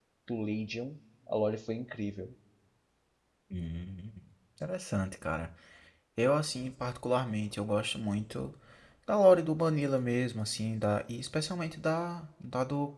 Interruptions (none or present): none